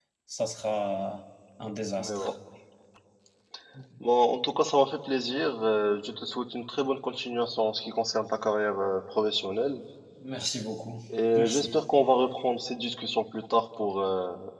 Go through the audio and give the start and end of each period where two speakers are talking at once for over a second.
none

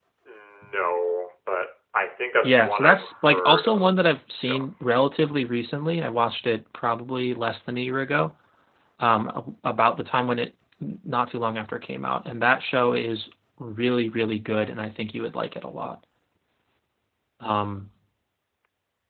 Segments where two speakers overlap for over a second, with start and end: 2.4-4.0

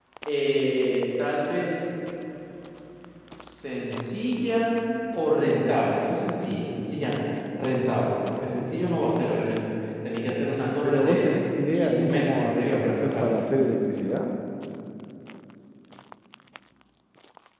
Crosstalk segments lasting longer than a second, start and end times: 11.7-13.3

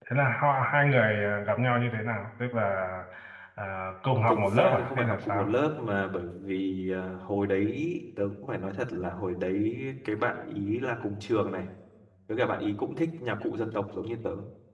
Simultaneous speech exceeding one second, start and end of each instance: 4.3-5.5

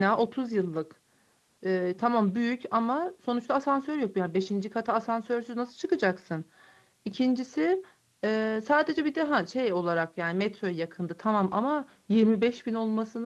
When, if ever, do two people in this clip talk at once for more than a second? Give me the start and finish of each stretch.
none

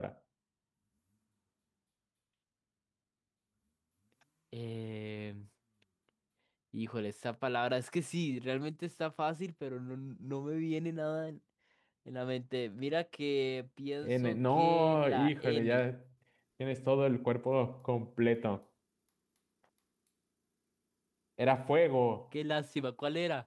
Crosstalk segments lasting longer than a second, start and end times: 14.0-15.8

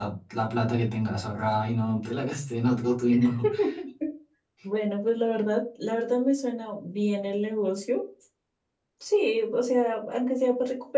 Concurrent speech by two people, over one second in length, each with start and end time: none

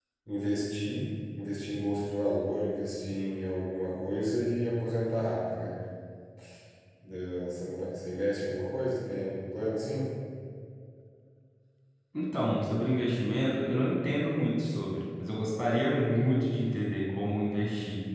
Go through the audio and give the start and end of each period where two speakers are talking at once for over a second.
none

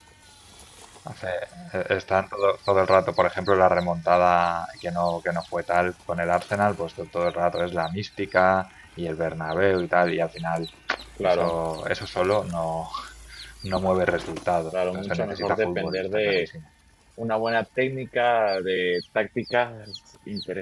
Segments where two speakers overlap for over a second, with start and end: 14.7-16.5

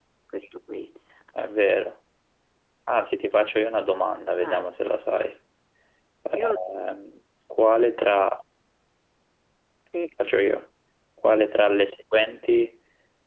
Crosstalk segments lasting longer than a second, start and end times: none

